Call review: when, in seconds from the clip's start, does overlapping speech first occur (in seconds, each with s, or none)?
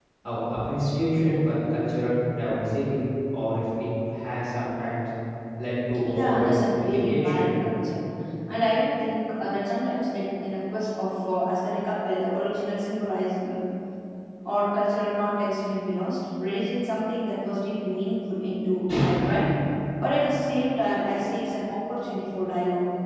6.1 s